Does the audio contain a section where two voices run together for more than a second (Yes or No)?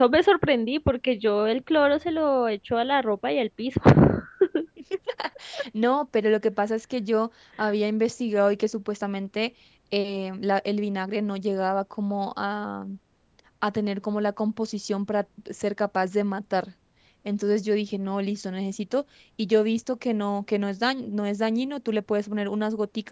No